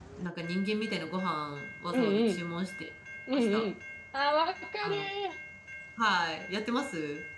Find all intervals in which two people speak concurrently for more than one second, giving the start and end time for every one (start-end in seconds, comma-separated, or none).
none